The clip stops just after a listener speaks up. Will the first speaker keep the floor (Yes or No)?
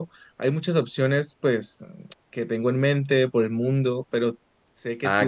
No